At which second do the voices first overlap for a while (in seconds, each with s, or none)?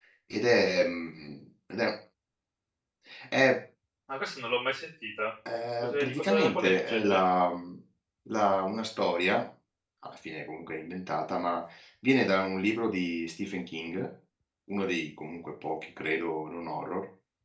5.8 s